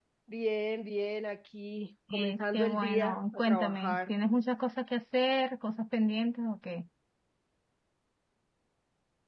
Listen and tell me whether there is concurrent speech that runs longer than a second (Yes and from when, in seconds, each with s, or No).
Yes, from 2.1 s